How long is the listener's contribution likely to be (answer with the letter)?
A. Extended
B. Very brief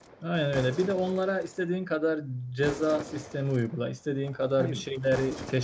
B